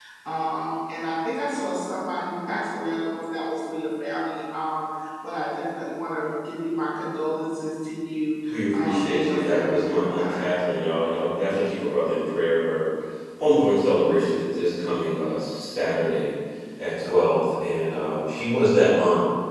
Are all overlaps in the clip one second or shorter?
No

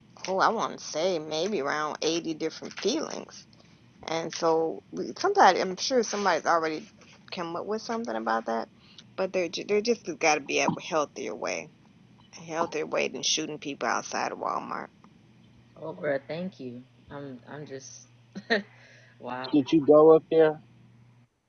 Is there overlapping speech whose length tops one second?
No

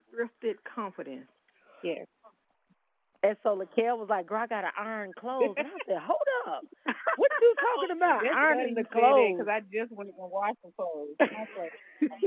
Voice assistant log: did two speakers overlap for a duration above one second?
Yes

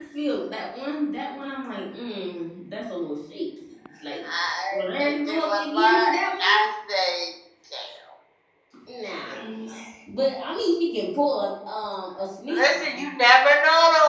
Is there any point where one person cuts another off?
Yes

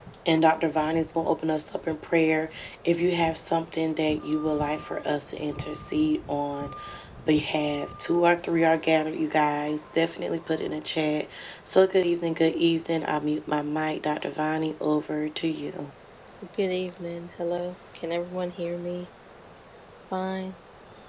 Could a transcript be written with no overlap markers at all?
Yes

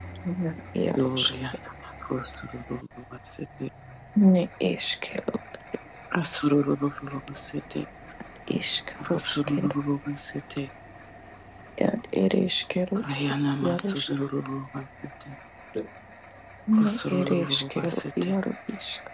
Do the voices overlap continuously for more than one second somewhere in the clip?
Yes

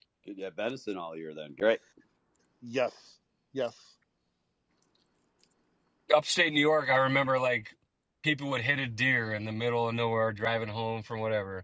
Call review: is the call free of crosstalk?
Yes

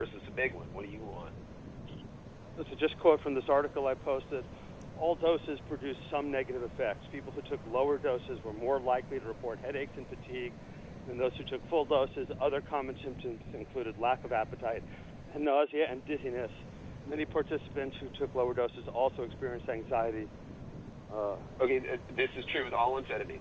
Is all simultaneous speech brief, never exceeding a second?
Yes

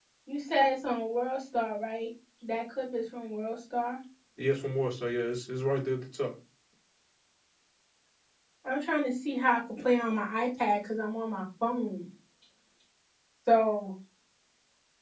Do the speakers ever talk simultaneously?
No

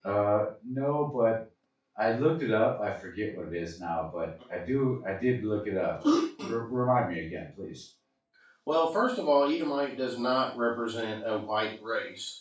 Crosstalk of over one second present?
No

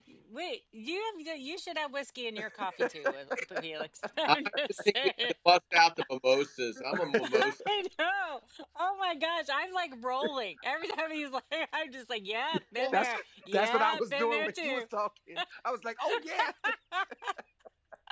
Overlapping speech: Yes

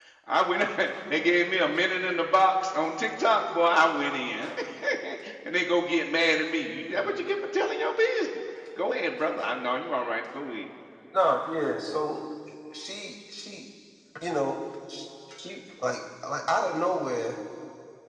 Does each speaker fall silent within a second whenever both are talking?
Yes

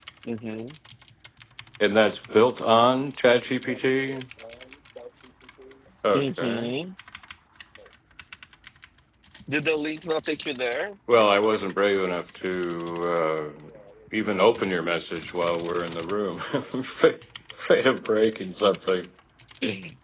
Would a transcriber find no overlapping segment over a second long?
Yes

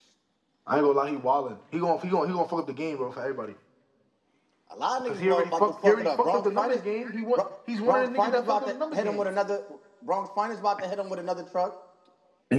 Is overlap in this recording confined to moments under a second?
No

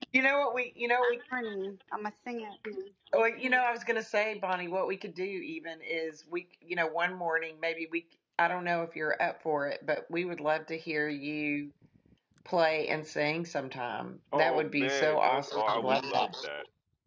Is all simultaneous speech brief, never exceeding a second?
No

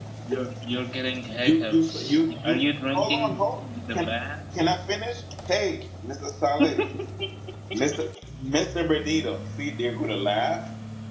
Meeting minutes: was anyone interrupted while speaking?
Yes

